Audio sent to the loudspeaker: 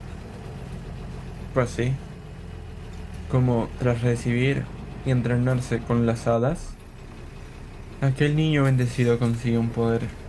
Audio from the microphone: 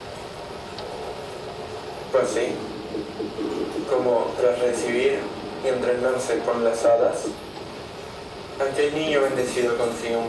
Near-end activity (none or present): none